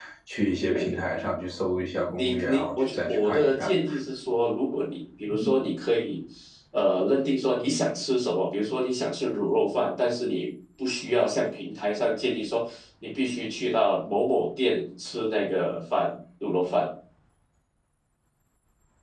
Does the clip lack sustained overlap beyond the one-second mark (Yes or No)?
No